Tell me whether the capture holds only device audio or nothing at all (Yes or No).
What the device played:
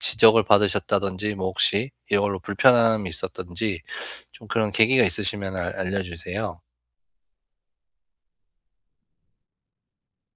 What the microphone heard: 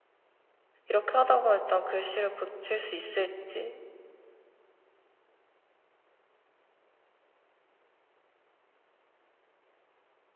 No